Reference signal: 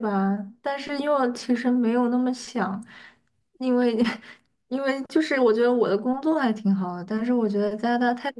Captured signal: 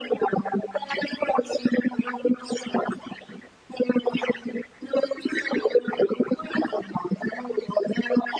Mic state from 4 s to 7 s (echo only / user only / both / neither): echo only